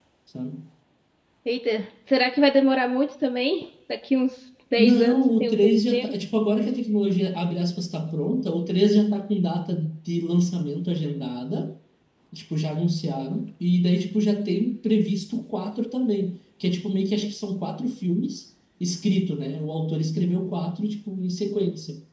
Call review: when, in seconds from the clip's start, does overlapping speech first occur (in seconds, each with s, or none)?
4.8 s